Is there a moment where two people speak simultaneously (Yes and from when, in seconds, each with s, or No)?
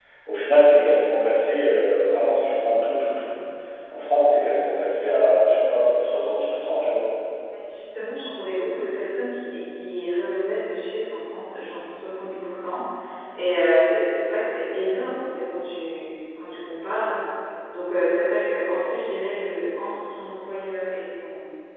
No